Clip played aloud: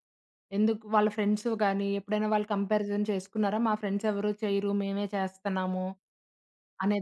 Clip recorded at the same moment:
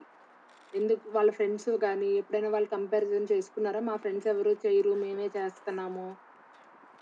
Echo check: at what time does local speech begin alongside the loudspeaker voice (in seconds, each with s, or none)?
none